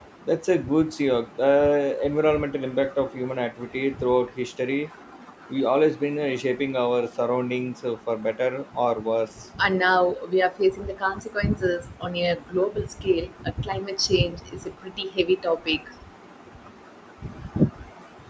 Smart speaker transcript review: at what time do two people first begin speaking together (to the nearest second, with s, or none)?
none